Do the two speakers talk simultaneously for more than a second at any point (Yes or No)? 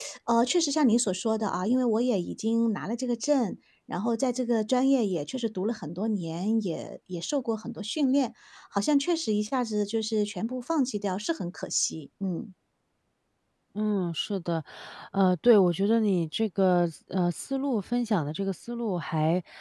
No